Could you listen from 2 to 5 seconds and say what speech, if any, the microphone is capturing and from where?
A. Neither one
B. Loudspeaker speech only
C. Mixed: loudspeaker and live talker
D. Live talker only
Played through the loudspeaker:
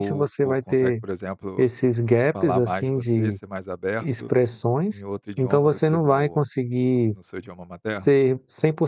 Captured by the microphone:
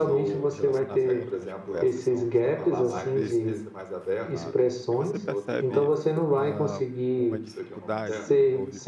C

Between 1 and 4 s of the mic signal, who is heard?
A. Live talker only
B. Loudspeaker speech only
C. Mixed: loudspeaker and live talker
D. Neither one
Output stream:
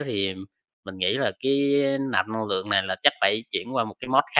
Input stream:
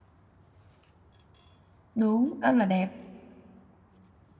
A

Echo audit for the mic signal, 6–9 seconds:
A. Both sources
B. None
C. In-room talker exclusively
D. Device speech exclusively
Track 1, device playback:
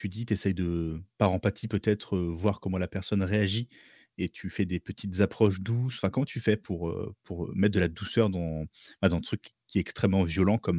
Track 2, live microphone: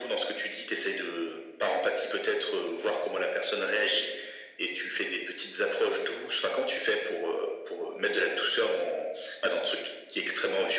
D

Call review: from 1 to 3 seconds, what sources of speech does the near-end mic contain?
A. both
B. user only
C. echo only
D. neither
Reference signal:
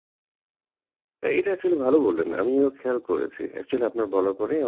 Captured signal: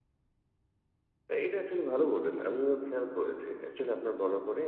C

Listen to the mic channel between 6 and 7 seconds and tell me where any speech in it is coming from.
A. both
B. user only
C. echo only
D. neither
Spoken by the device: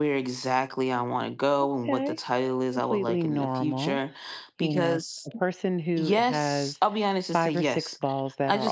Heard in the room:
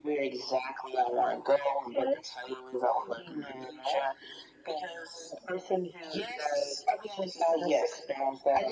C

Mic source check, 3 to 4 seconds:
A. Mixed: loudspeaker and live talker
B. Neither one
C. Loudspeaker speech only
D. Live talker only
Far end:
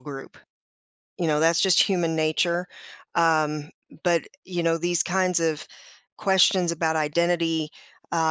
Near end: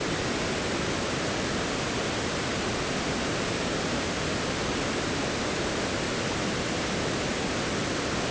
B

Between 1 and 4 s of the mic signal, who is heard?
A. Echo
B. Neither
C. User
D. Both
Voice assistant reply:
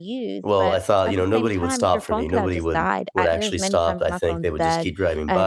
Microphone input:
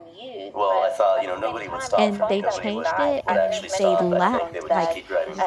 D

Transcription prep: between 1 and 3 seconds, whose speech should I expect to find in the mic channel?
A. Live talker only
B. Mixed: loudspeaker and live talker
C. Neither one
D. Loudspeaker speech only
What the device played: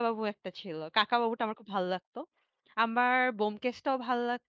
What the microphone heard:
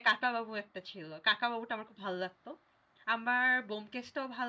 D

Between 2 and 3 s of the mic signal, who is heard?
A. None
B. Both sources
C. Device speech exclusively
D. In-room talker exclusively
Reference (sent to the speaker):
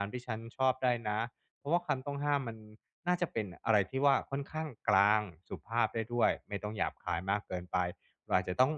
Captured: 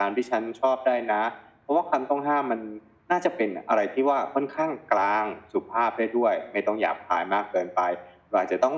C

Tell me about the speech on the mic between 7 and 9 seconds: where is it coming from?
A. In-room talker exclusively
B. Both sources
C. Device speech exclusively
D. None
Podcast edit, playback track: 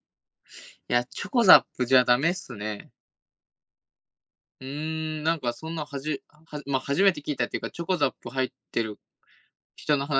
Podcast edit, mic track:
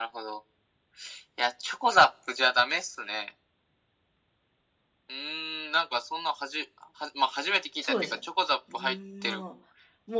B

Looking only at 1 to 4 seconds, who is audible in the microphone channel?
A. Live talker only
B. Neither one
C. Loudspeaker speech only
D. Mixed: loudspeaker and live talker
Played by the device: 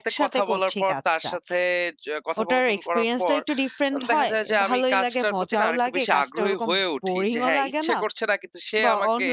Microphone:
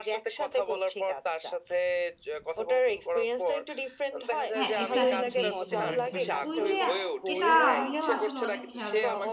C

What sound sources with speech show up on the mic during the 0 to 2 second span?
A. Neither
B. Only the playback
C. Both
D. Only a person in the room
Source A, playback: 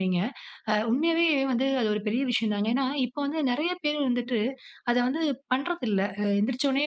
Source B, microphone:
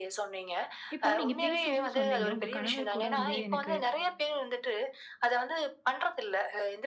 C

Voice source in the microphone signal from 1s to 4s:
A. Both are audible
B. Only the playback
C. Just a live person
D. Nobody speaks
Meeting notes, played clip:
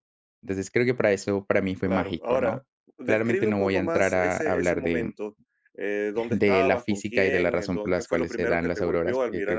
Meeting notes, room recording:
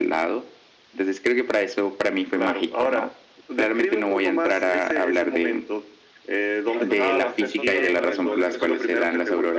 B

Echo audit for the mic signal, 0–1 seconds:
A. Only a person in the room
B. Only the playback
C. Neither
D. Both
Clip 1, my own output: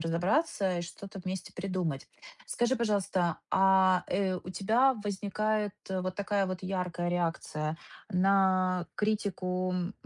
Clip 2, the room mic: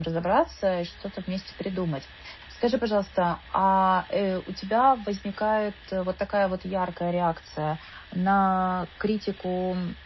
B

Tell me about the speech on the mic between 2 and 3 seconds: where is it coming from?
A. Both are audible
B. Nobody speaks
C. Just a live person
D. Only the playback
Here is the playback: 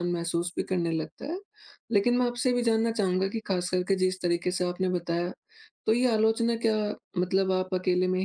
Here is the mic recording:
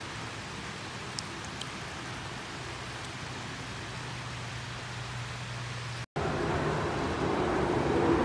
B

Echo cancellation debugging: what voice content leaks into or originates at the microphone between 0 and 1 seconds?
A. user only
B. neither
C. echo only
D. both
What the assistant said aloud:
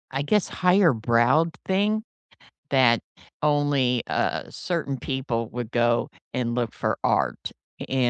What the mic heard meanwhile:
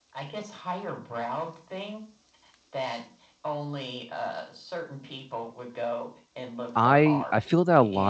C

